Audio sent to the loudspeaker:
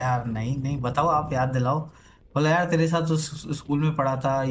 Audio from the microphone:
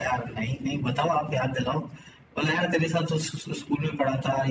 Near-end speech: none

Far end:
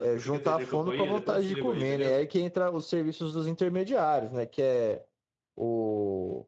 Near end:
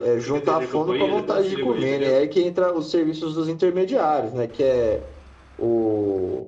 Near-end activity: none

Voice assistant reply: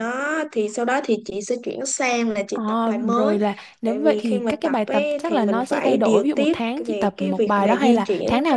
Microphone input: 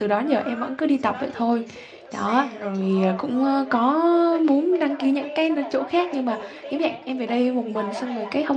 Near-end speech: present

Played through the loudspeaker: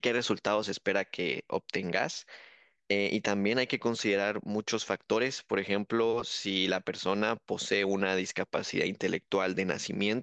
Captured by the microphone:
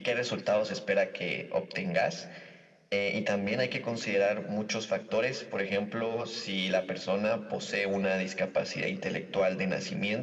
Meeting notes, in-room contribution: none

